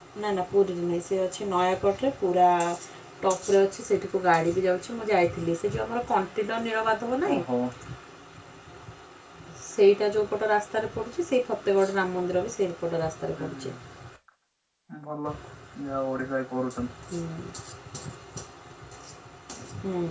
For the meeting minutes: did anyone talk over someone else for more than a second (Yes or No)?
No